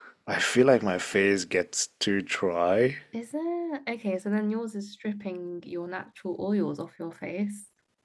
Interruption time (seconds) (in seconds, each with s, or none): none